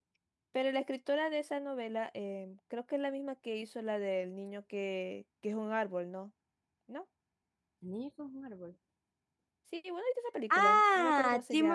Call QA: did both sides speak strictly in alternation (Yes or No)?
No